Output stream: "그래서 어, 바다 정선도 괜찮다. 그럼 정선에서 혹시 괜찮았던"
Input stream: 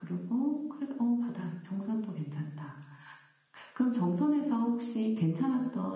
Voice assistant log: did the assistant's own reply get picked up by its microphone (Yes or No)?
Yes